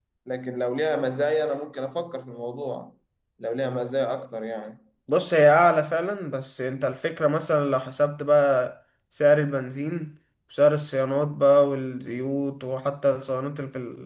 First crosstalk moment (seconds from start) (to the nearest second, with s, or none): none